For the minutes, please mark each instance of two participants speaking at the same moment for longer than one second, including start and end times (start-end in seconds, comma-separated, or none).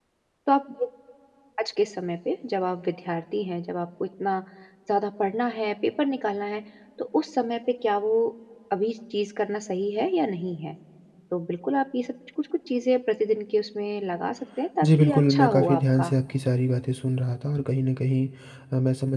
14.8-16.1